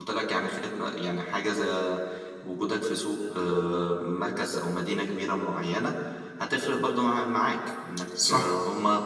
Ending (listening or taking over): listening